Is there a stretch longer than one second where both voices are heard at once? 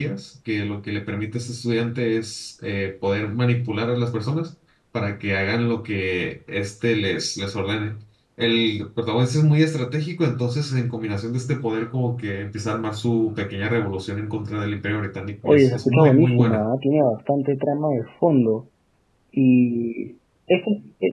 Yes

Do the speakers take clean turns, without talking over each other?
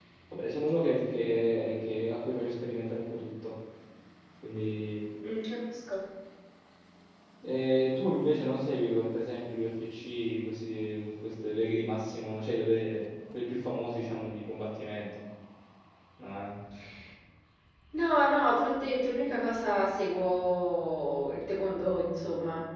Yes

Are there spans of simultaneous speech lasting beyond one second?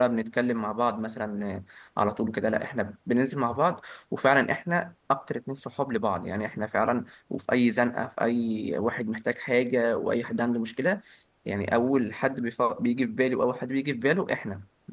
No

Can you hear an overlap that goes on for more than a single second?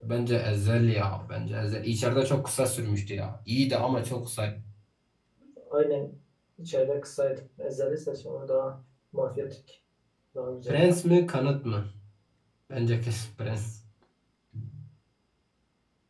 No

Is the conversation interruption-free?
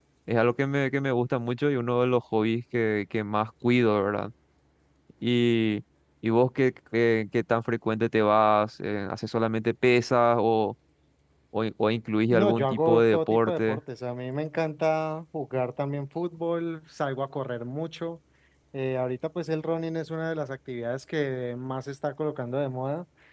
No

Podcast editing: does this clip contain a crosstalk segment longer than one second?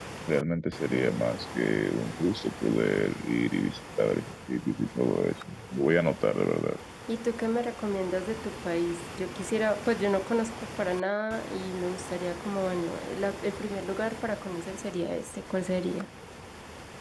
No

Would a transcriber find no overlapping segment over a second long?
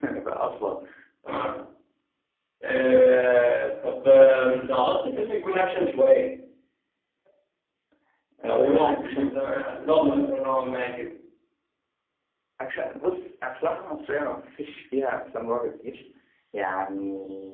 No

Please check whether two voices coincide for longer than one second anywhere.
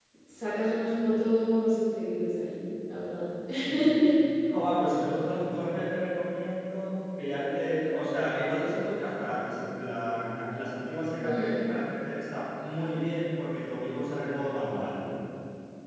No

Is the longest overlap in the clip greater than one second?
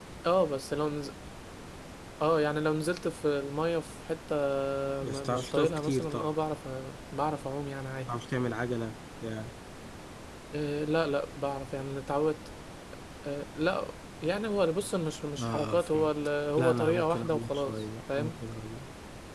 Yes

